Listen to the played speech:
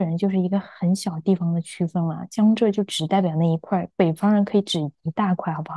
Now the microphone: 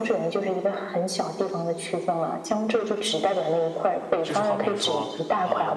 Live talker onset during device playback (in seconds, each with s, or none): 4.2 s